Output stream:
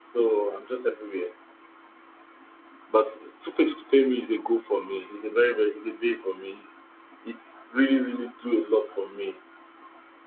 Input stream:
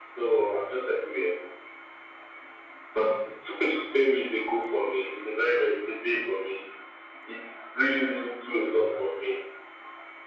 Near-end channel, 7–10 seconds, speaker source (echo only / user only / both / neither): echo only